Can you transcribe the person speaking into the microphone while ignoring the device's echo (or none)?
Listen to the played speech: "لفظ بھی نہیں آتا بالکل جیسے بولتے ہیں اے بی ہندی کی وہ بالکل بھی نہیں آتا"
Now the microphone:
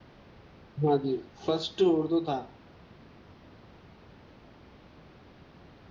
ہاں جی فسٹ اردو تھا